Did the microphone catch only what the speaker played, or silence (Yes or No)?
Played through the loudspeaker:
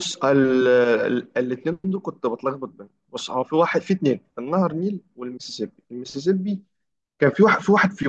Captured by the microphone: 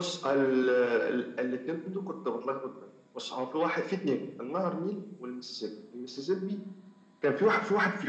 Yes